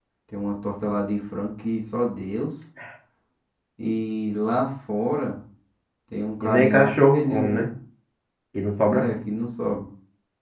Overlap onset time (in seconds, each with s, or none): 6.4 s